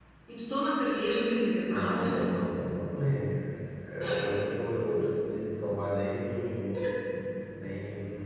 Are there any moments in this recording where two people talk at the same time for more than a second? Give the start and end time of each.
none

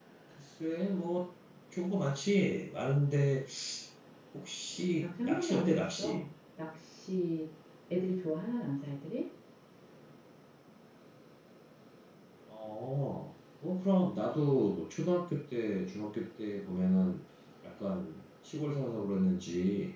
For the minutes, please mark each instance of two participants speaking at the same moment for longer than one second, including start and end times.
5.0-6.2

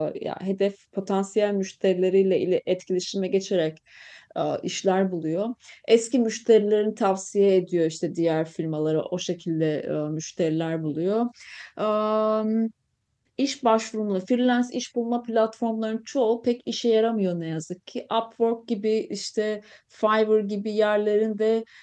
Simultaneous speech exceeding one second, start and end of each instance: none

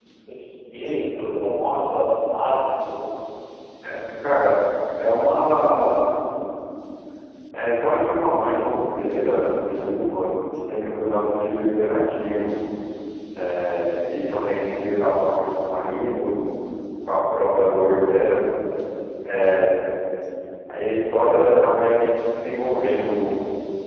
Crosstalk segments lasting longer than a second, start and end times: none

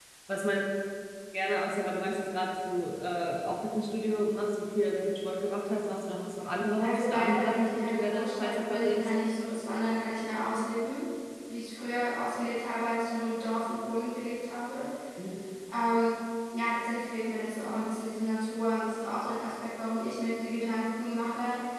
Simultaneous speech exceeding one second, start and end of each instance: 6.8-9.0

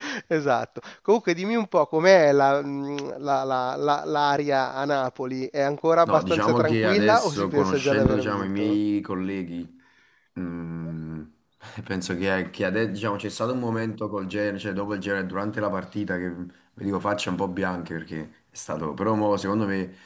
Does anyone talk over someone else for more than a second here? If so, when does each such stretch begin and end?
6.0-8.8

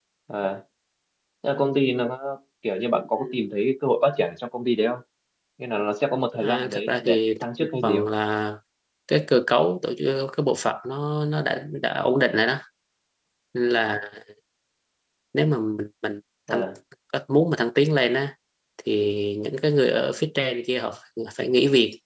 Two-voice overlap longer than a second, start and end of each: 6.3-8.1

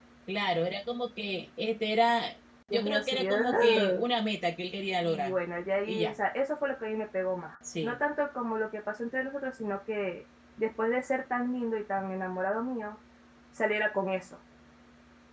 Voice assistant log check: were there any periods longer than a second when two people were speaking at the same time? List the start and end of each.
2.7-4.0

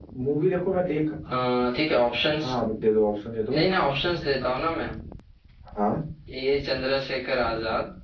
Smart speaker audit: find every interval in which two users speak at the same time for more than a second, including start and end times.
none

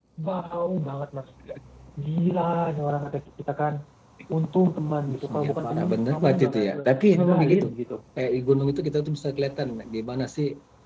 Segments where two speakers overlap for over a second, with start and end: 5.3-7.7

